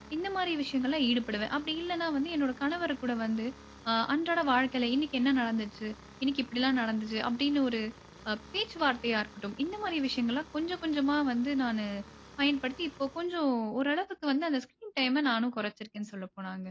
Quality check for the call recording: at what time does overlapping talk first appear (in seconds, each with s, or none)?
none